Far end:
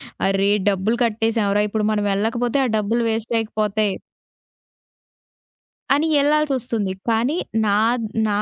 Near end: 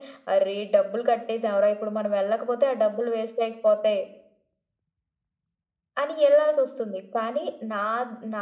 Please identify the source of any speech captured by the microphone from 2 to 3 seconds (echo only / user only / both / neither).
echo only